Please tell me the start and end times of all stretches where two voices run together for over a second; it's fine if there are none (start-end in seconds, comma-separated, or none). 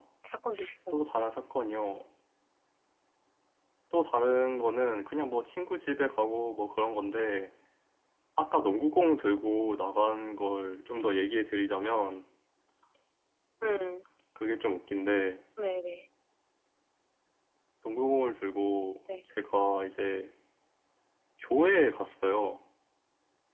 none